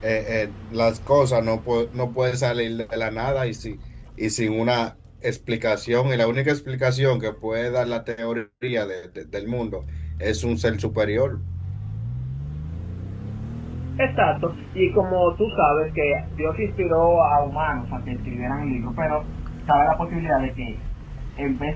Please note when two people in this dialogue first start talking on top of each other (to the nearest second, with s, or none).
none